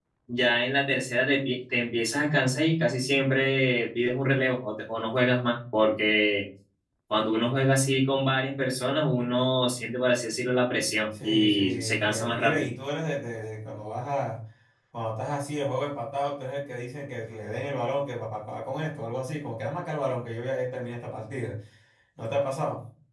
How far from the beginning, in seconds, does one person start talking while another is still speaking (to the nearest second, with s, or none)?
11 s